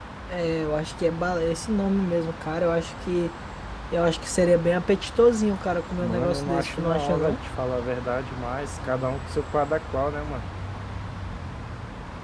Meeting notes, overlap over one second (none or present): present